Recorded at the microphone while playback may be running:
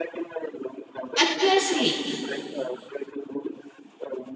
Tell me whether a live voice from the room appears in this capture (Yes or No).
Yes